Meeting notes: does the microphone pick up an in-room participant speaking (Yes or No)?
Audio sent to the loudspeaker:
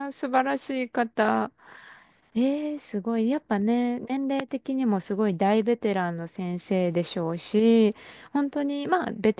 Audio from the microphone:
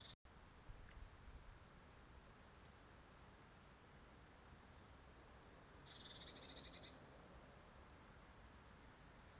No